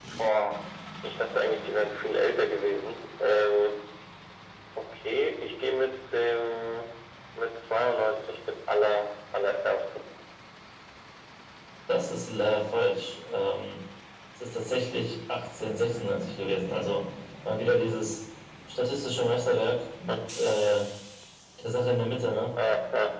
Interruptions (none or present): none